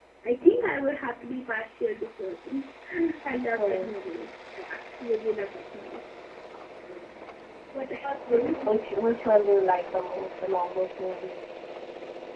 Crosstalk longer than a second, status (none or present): none